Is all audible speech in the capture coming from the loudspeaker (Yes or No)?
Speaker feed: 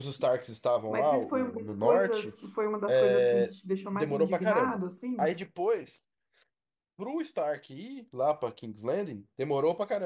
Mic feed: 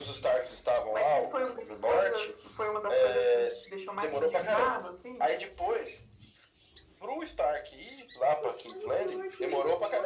No